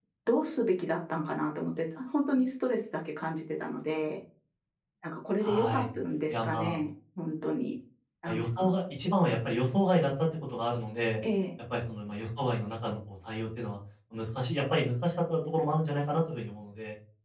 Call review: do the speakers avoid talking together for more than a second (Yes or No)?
Yes